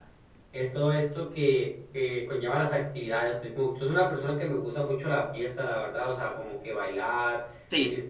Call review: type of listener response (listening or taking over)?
listening